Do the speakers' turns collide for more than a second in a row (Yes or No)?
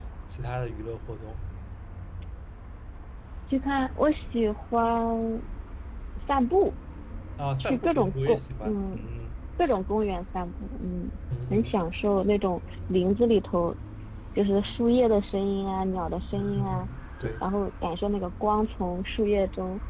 Yes